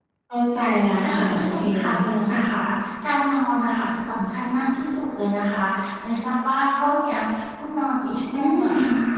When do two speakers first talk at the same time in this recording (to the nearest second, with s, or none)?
1 s